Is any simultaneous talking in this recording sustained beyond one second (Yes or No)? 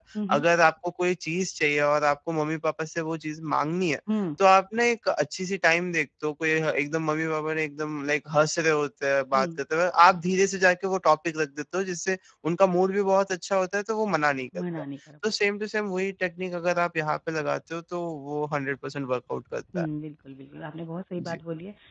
No